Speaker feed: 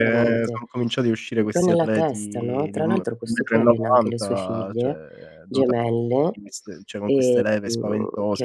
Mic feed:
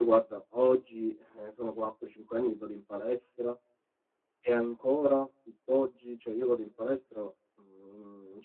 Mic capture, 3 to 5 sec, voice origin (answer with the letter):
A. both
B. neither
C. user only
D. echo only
C